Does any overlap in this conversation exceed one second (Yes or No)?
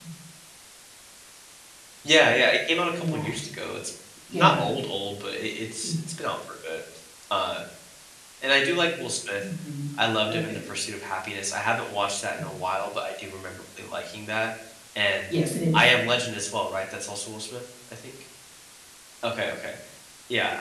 No